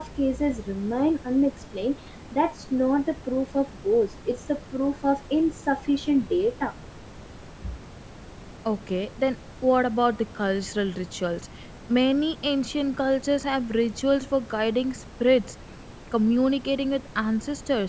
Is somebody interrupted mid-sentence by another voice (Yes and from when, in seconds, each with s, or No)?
No